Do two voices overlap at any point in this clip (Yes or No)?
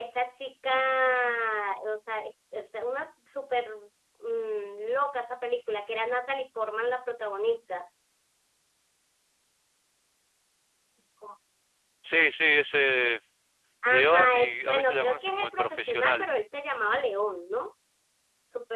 Yes